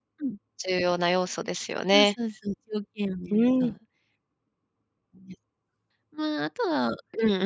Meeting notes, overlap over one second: none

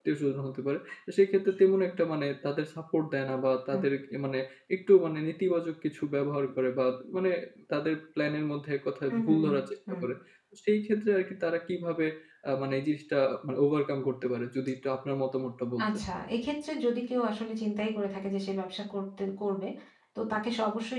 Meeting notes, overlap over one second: none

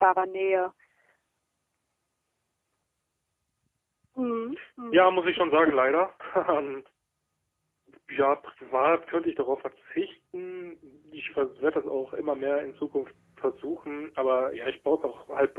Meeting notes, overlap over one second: none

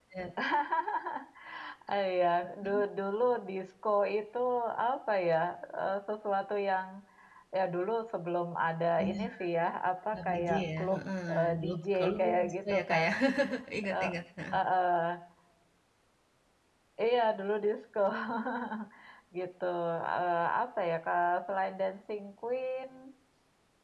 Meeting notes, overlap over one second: present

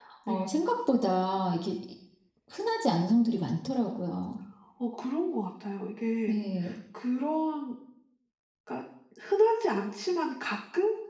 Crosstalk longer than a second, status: none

